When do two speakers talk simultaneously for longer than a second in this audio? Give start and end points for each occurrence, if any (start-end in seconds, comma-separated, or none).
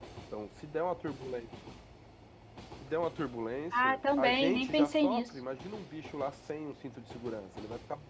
3.7-5.3